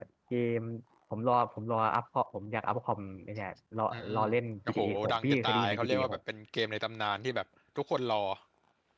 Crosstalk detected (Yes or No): Yes